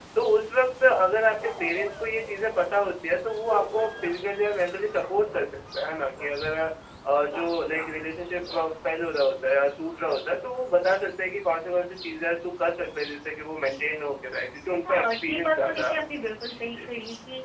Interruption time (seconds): 15 s

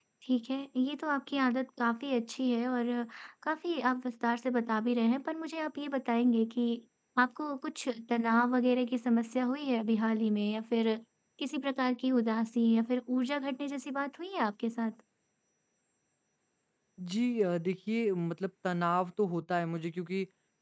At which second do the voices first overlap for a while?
none

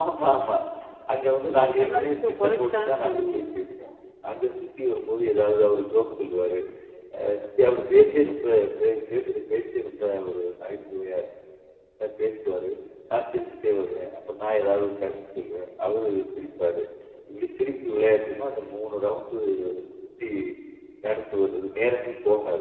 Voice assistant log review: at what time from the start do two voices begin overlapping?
2 s

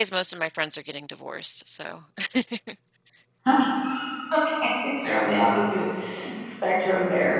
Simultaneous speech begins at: none

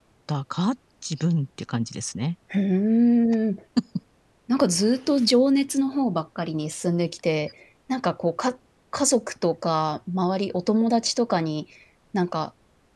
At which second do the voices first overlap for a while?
none

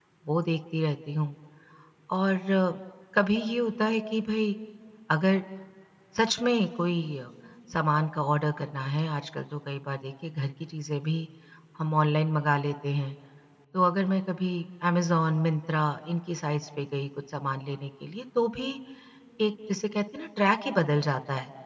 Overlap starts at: none

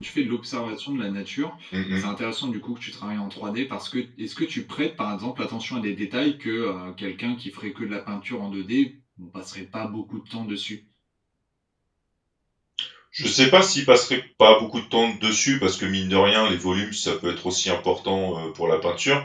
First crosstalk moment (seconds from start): none

